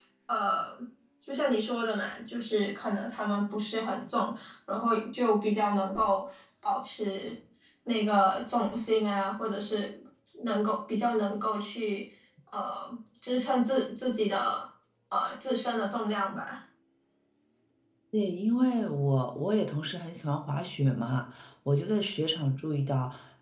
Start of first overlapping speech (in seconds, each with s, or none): none